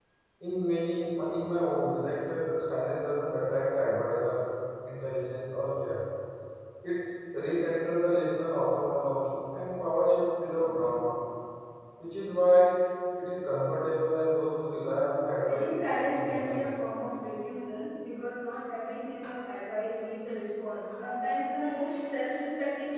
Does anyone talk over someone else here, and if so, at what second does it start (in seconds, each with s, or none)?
15.4 s